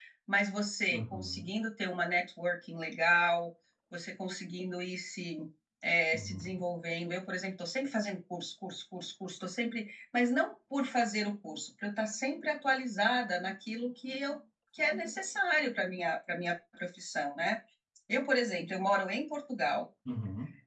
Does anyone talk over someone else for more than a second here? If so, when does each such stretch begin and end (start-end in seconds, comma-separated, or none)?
none